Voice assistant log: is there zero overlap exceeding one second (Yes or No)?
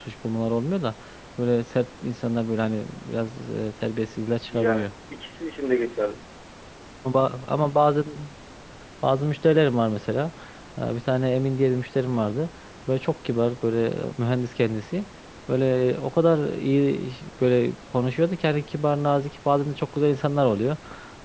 Yes